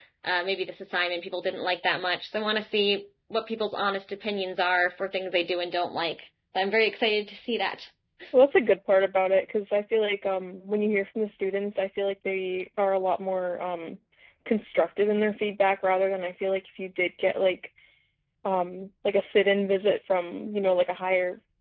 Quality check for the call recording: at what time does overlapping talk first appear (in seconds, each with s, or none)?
none